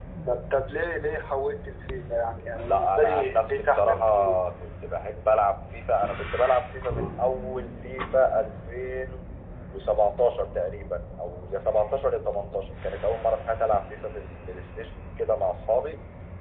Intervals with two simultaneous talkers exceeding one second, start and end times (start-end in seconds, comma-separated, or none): 2.6-4.3